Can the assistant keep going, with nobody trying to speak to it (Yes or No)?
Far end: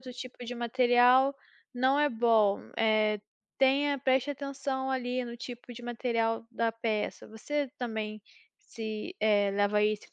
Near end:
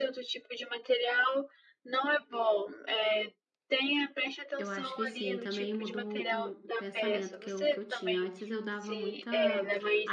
No